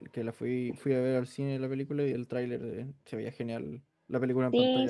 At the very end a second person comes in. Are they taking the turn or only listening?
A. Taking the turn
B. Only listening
A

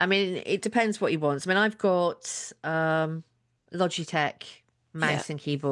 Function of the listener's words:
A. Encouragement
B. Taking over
A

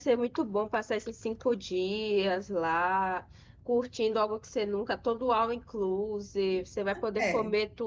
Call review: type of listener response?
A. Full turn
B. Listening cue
B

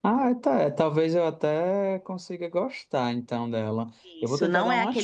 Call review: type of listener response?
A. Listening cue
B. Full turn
B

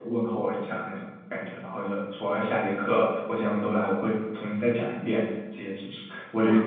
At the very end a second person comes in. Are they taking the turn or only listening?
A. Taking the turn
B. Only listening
A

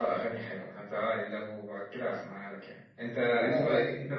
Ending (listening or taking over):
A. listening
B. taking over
A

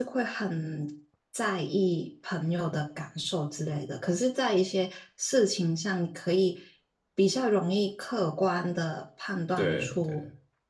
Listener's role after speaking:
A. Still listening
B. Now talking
A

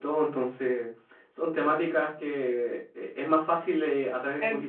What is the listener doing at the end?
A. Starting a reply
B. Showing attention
A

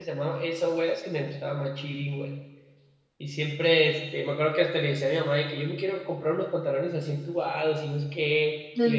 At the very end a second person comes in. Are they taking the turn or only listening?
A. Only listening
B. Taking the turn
A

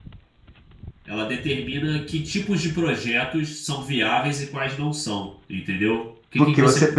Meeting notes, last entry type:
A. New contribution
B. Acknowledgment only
A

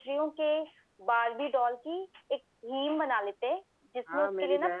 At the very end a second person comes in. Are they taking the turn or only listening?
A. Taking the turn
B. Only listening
A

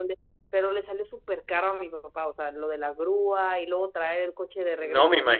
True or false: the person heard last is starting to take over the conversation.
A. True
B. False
A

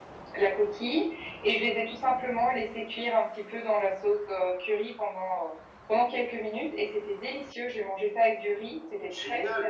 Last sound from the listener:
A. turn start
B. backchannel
A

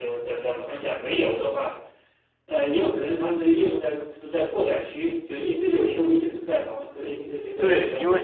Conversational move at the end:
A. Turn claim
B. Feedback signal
A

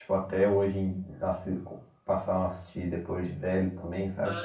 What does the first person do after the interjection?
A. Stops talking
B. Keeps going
A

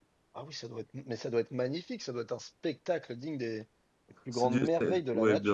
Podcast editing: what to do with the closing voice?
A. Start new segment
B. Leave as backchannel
A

